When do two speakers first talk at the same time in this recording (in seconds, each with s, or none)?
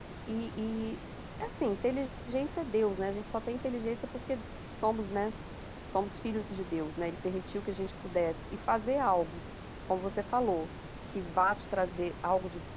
none